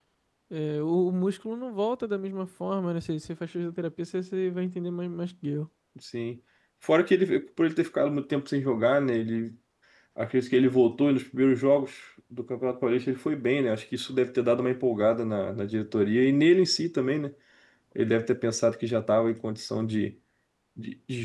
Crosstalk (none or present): none